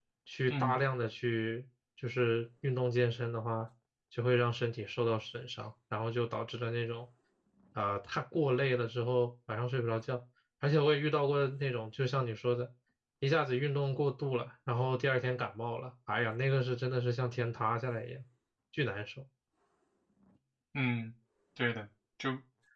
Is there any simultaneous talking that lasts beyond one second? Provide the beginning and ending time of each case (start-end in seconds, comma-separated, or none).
none